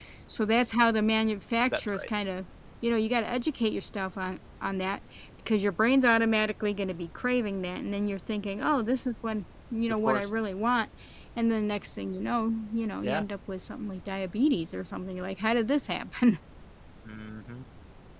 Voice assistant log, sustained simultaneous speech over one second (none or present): none